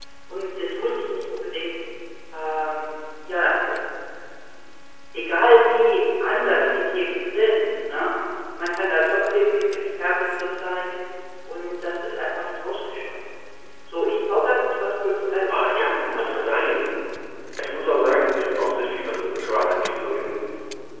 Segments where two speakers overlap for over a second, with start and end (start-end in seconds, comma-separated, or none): 15.5-16.8